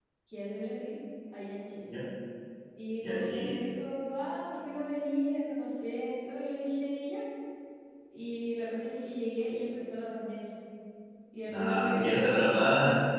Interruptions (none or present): present